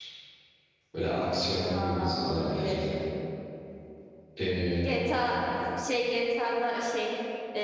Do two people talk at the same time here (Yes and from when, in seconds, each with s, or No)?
Yes, from 1.6 s